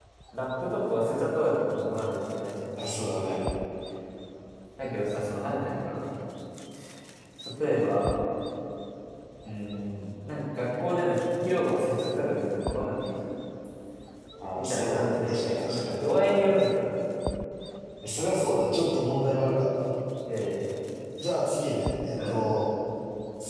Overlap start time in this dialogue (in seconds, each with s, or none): 14.6 s